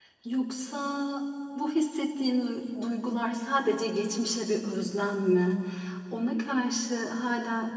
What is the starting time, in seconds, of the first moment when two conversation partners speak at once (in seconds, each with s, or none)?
none